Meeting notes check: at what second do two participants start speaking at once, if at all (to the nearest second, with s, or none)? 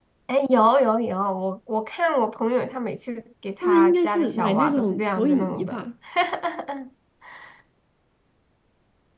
4 s